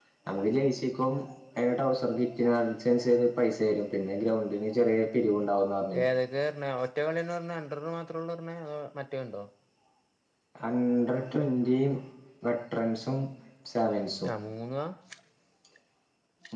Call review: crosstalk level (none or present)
none